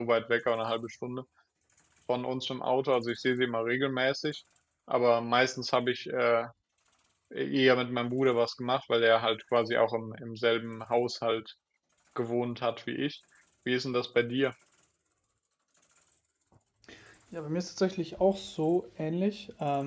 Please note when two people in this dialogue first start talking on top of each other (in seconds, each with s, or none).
none